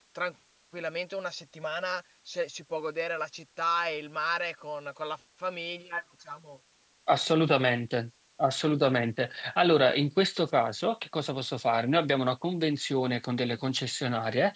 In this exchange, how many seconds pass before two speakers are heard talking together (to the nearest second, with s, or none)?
none